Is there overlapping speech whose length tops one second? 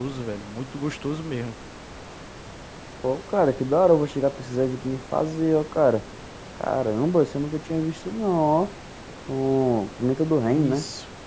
No

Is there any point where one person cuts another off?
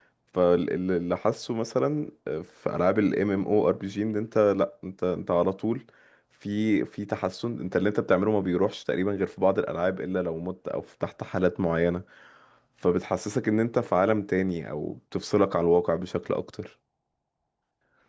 No

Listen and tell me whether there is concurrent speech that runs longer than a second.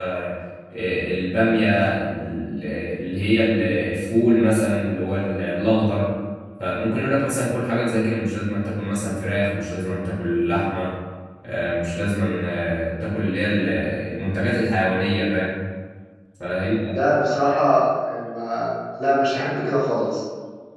No

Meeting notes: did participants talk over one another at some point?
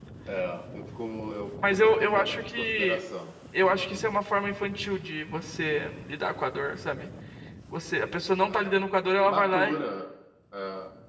Yes, from 1.6 s

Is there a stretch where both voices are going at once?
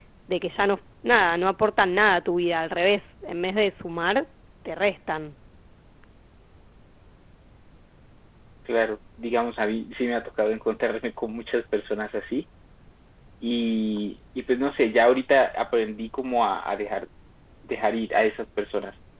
No

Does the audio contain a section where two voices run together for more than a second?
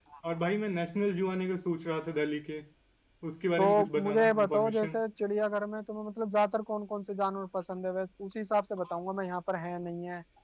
Yes, from 3.6 s

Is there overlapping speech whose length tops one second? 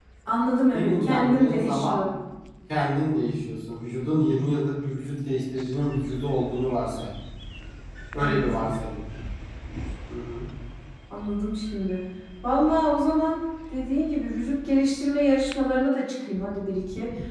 Yes, from 0.7 s

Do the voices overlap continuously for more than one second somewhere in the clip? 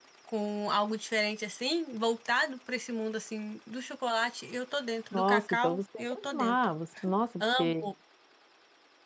Yes, from 5.1 s

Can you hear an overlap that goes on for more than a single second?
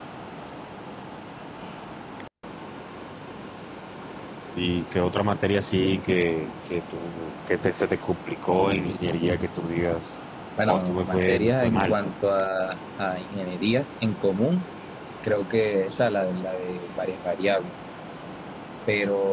Yes, from 10.7 s

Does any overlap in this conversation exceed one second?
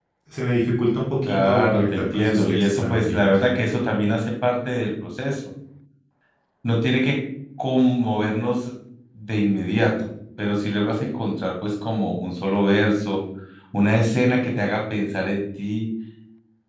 Yes, from 1.2 s

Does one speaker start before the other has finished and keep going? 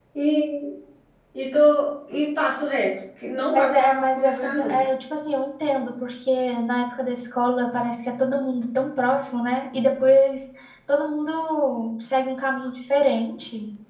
Yes, from 3.5 s

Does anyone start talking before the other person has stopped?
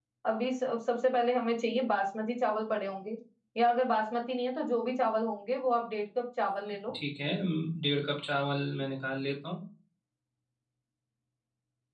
No

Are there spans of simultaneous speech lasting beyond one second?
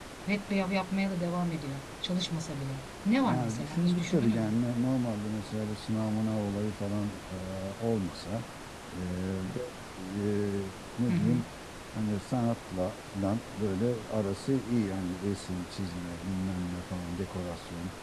Yes, from 3.2 s

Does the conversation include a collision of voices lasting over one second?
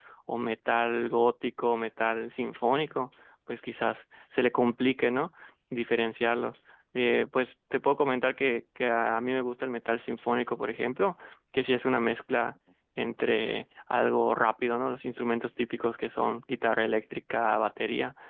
No

